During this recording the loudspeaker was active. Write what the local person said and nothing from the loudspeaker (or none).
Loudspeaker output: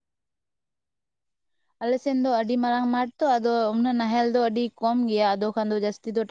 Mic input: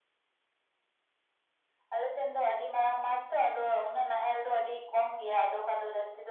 none